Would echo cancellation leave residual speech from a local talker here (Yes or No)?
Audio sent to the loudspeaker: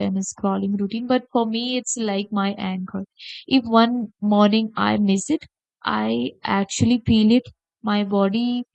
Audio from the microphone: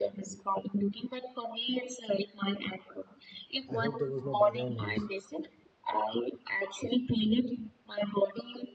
Yes